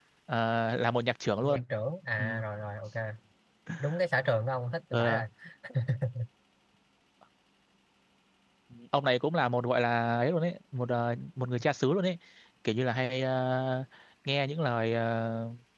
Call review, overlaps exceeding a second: none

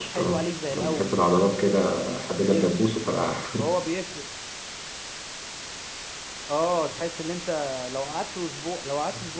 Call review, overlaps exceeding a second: none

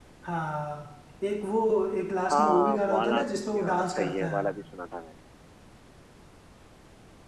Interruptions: present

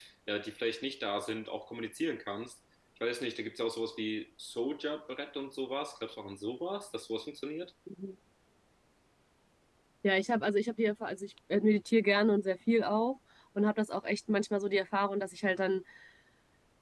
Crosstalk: none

